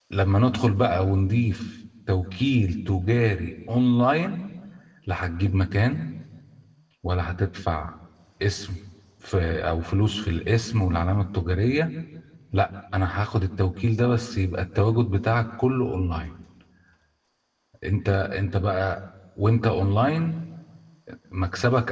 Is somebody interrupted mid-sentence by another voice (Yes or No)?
No